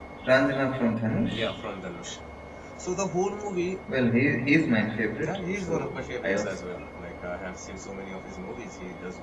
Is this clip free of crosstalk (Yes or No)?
No